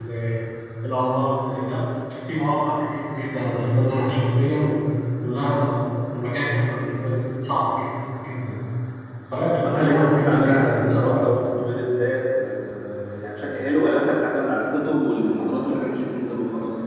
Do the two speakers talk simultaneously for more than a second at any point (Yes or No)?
Yes